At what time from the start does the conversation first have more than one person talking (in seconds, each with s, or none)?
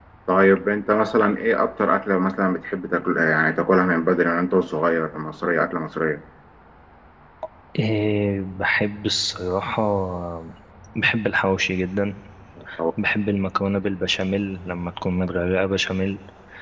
none